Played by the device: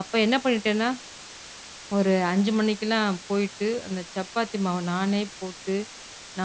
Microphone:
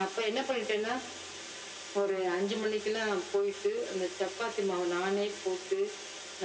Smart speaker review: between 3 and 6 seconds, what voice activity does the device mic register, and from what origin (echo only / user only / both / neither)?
echo only